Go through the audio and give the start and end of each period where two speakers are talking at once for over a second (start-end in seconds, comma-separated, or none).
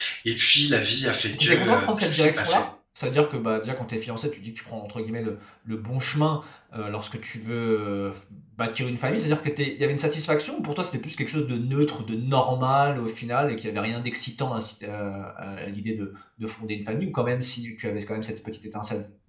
1.4-2.6